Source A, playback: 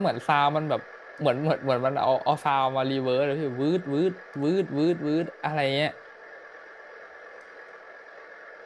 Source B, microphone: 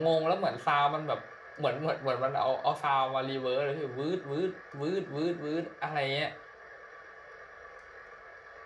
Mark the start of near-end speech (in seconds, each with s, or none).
none